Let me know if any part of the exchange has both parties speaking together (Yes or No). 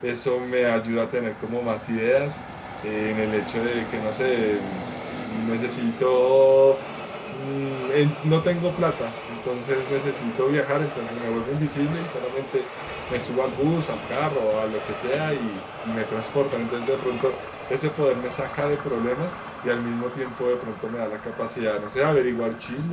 No